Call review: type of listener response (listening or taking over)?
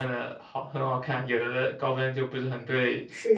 taking over